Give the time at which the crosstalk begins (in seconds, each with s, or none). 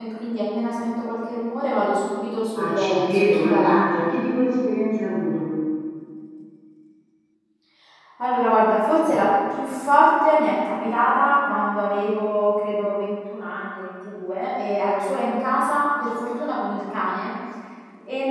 2.6 s